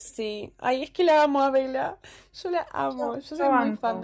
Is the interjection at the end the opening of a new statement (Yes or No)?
Yes